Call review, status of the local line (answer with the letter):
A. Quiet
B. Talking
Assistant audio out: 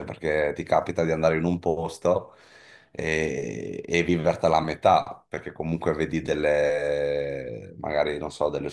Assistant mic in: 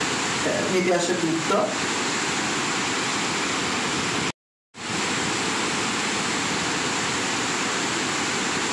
B